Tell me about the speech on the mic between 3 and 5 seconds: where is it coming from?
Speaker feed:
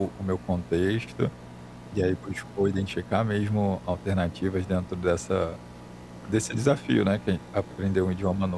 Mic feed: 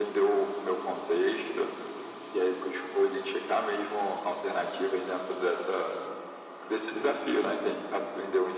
echo only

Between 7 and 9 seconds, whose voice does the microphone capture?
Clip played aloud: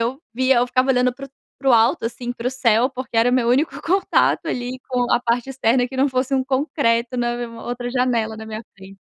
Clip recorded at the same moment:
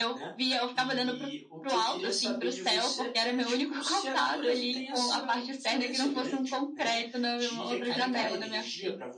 both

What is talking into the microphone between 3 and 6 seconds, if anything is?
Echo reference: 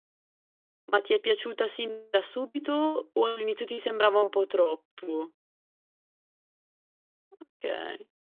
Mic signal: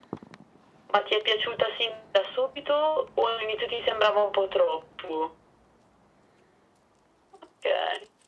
echo only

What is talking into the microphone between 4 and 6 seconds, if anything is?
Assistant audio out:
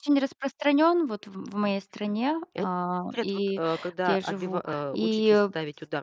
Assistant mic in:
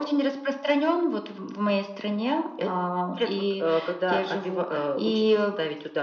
echo only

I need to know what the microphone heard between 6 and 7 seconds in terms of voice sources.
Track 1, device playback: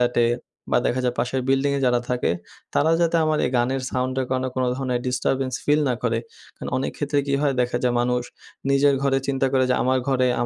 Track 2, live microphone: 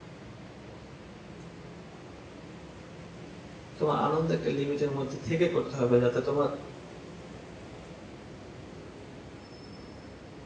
user only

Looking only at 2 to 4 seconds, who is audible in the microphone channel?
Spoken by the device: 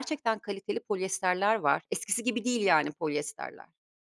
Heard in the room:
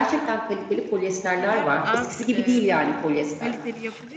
both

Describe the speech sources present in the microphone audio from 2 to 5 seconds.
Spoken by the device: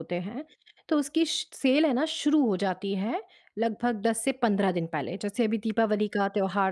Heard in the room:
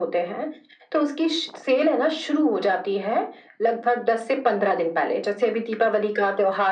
echo only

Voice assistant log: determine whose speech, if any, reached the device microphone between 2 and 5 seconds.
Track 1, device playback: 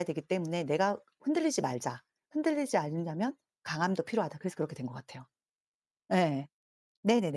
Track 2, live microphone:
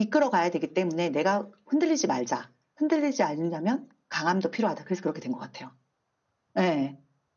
echo only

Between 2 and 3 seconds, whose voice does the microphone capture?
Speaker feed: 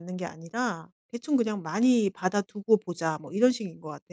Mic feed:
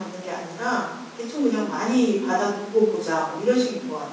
echo only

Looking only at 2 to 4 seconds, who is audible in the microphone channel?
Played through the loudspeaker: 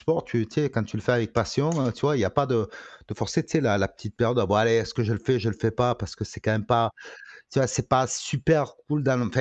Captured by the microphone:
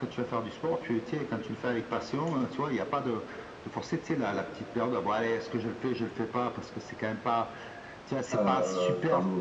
echo only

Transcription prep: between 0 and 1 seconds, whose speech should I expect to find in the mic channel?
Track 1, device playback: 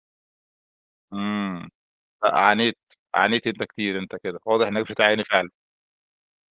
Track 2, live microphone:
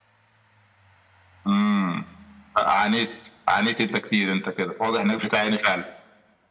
neither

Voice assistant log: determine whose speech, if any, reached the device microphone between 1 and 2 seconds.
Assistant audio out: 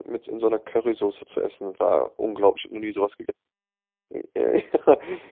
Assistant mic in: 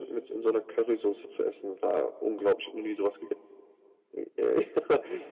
echo only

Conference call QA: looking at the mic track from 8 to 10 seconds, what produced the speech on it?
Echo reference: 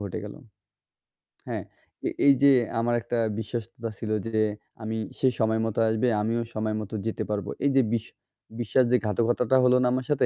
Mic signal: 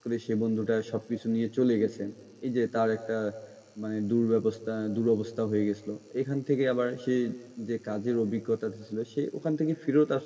user only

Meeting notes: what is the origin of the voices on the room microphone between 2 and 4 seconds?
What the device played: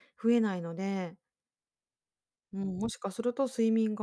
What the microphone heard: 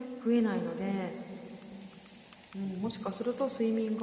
echo only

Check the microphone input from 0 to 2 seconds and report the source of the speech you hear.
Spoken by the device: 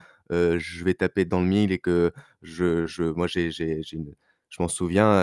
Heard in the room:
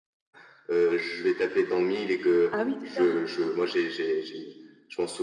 echo only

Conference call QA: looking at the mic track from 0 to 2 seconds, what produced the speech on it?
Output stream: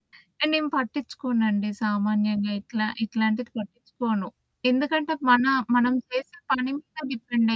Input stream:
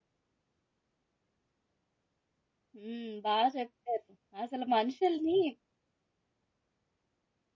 neither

